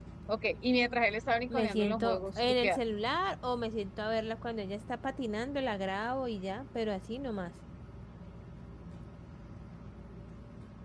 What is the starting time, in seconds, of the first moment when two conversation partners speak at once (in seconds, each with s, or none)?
1.5 s